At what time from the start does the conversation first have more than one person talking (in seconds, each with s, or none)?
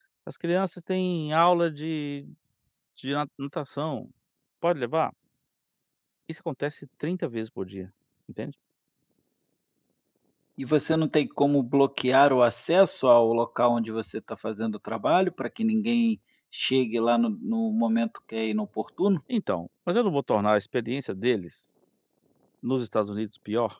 none